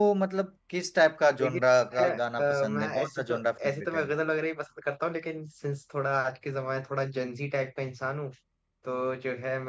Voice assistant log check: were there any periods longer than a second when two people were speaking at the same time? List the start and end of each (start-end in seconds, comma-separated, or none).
2.6-4.1